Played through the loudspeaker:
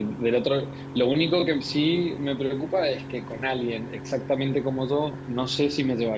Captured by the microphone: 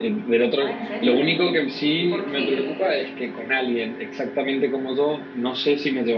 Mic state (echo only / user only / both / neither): both